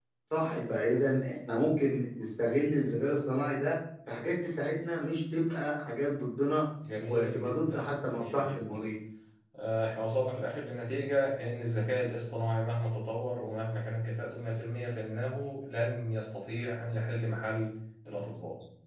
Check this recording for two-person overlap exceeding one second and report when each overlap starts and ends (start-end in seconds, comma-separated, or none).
7.0-8.9